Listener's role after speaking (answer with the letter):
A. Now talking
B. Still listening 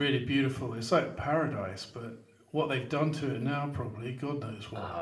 A